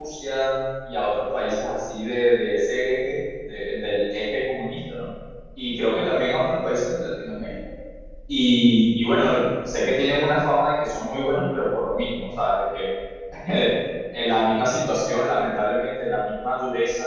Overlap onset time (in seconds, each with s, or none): none